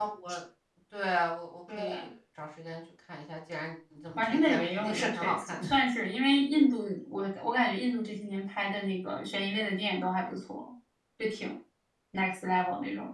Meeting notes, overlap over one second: present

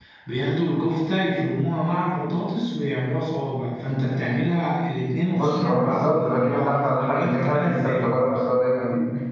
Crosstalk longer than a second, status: present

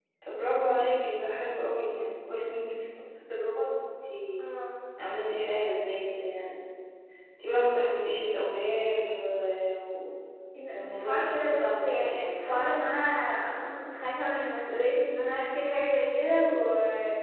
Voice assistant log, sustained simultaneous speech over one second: present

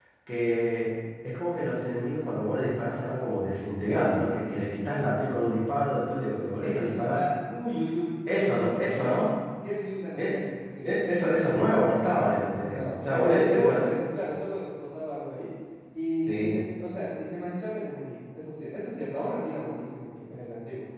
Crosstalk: present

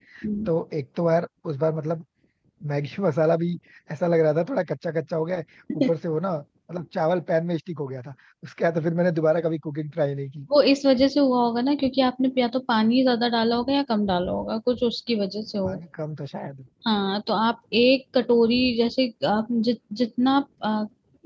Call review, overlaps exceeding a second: none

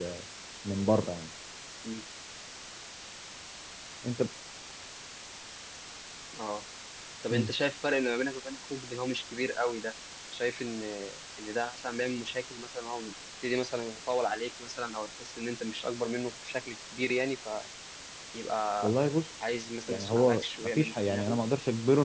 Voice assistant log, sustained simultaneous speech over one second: present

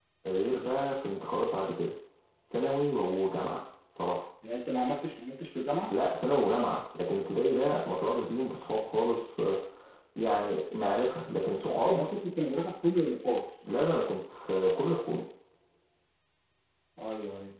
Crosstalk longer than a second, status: none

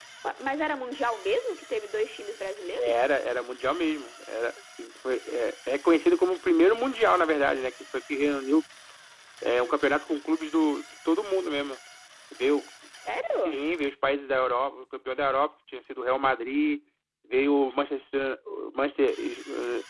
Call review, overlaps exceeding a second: none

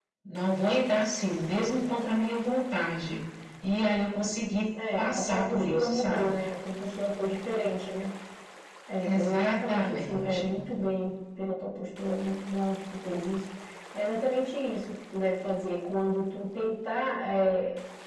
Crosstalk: present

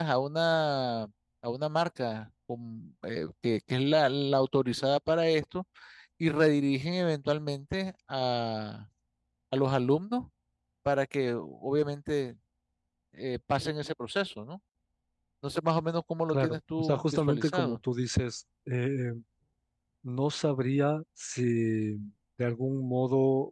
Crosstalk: present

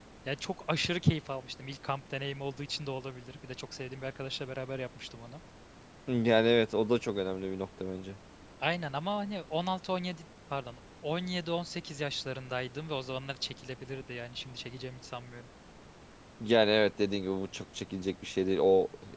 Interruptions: none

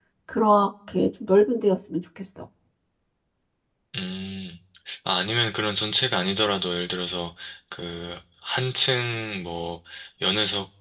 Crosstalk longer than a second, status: none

